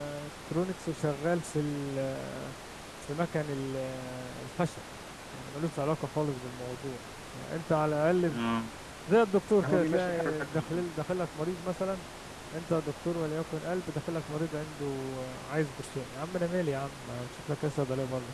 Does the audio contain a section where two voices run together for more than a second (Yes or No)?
Yes